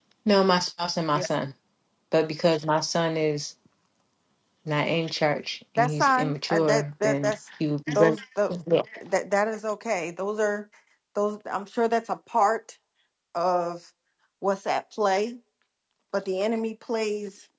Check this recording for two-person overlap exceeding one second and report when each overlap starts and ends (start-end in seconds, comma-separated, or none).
5.8-7.3